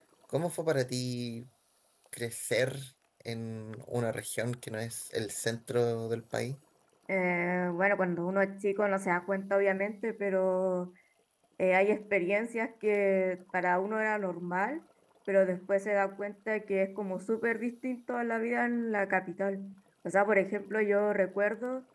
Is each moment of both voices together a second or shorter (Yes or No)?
Yes